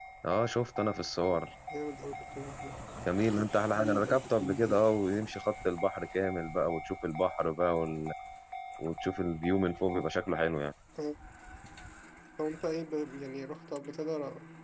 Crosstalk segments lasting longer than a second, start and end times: none

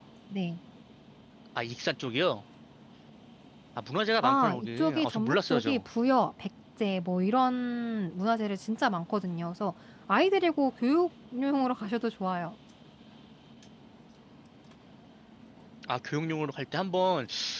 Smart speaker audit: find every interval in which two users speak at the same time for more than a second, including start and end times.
4.2-5.8

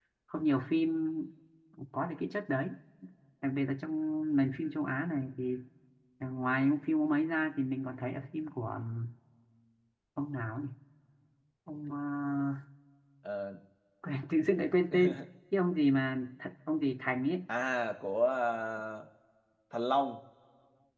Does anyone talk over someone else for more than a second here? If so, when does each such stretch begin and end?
none

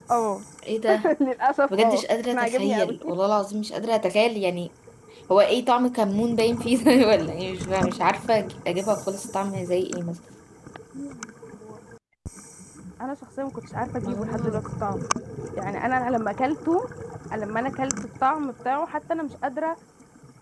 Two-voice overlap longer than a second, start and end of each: 1.7-2.9

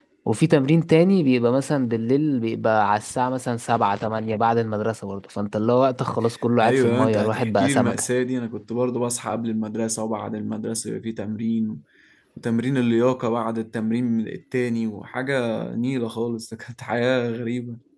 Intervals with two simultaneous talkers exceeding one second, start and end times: 6.6-8.0

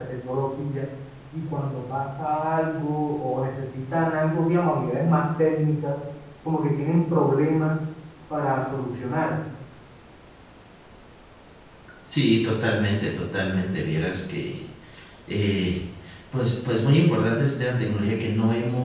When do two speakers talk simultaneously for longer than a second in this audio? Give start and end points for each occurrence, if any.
none

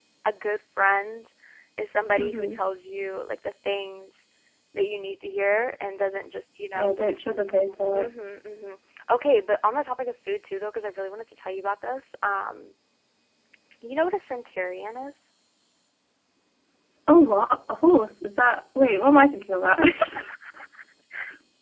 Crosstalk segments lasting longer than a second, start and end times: none

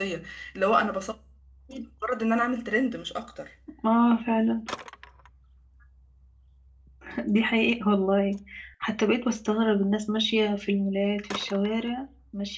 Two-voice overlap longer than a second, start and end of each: none

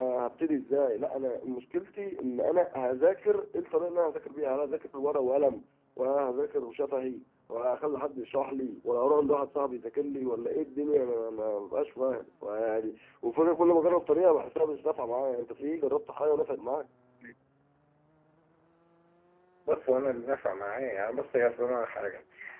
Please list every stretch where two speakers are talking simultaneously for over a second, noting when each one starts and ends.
none

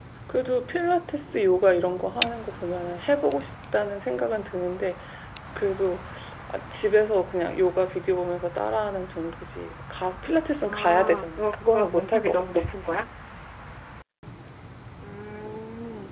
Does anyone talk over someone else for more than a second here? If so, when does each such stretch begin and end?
10.7-12.4

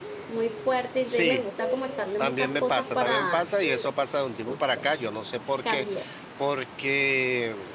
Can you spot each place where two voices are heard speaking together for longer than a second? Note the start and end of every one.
2.2-3.4

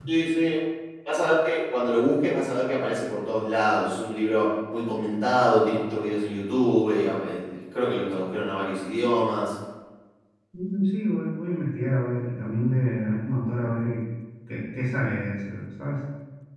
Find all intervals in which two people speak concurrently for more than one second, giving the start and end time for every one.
none

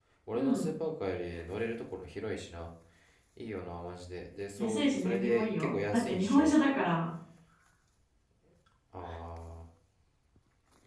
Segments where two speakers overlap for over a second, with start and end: 4.6-6.6

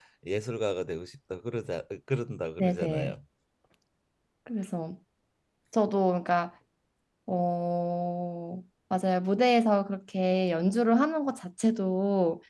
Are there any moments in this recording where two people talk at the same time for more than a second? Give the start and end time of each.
none

